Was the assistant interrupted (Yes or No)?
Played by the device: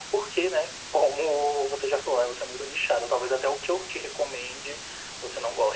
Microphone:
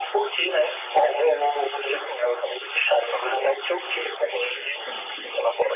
Yes